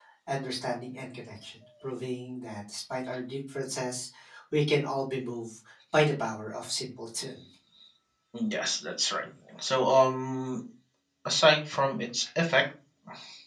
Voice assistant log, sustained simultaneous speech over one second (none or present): none